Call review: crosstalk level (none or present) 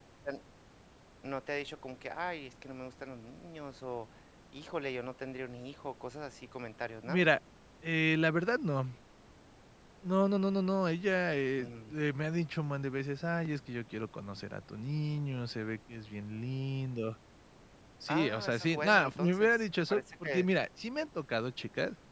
present